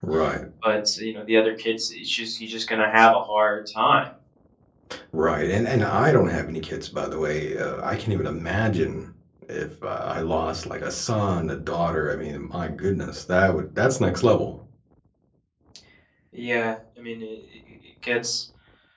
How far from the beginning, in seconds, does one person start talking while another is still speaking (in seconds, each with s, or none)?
none